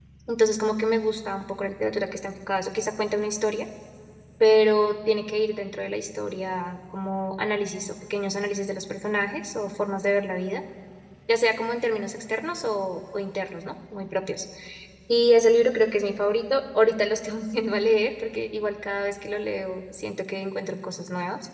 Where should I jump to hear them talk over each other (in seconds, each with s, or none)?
none